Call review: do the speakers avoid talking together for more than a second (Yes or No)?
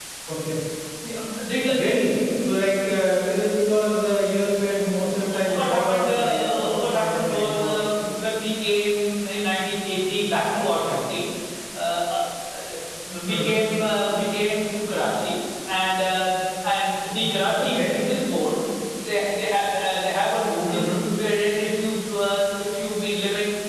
No